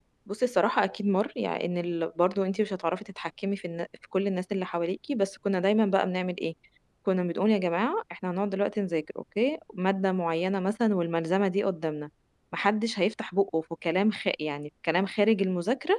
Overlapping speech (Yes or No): No